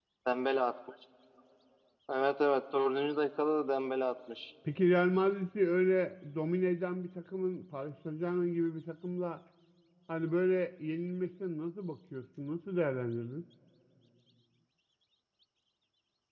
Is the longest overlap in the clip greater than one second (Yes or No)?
No